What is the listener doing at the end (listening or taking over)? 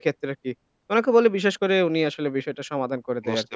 taking over